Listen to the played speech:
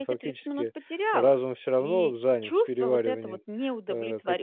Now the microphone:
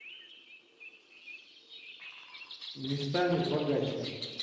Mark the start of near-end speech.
2.7 s

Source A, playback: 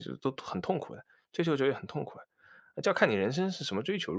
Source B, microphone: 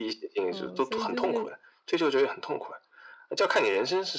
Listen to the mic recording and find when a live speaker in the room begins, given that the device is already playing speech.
0.5 s

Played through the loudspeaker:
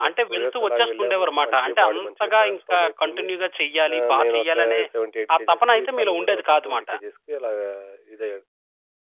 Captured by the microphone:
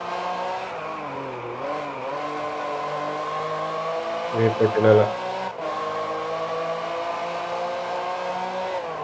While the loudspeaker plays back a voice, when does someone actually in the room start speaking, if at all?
4.4 s

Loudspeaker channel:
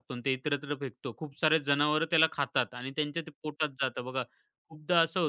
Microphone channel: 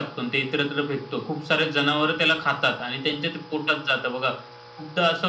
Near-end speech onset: none

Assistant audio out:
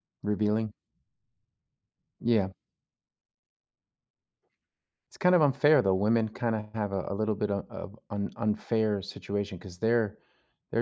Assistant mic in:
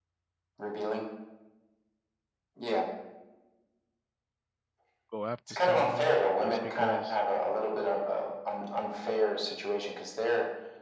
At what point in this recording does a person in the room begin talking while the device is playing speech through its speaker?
5.1 s

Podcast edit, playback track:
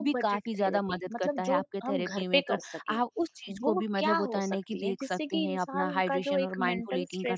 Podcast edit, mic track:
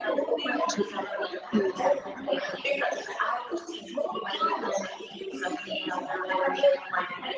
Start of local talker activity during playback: 0.7 s

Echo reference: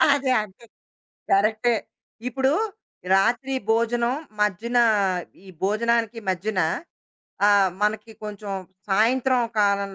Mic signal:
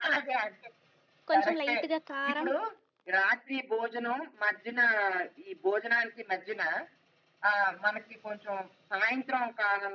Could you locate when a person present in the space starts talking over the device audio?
1.3 s

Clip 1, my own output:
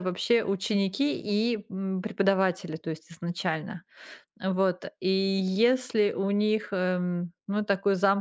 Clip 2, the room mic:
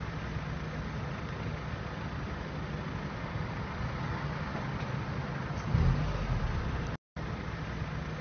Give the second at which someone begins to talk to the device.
none

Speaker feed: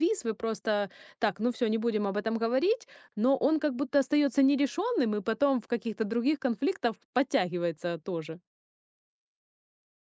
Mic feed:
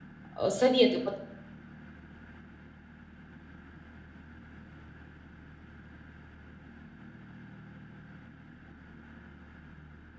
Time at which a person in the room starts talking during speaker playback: 0.3 s

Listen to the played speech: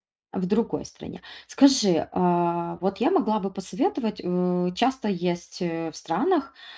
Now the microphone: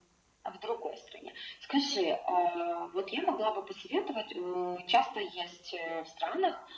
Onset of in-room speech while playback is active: none

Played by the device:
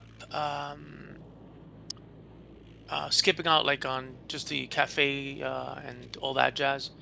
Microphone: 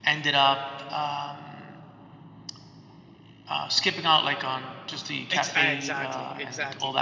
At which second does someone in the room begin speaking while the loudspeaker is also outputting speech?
5.3 s

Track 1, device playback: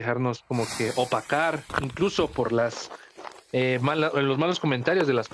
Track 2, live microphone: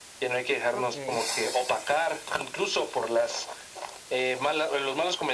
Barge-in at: 0.7 s

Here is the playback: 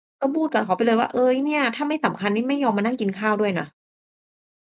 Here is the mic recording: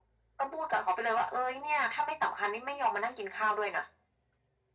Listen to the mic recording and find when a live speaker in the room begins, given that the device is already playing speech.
none

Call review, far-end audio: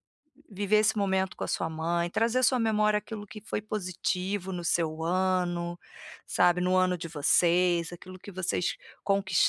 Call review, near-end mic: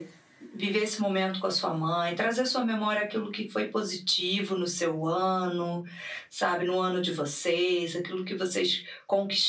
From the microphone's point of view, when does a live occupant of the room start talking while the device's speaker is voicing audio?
none

